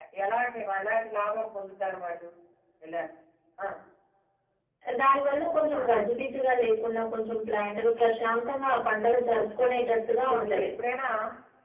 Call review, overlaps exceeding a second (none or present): none